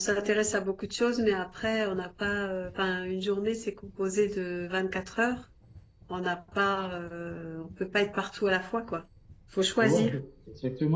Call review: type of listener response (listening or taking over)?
taking over